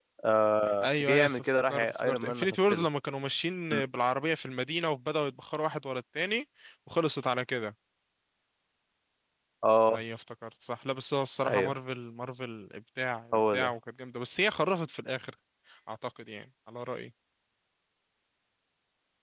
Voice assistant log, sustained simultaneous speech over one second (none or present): present